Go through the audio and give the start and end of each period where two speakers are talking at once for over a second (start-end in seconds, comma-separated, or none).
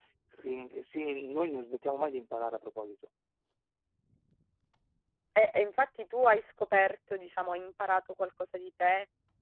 none